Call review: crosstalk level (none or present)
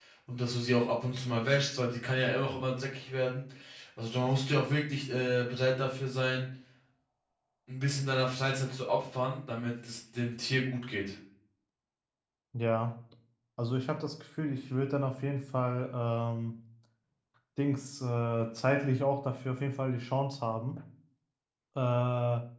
none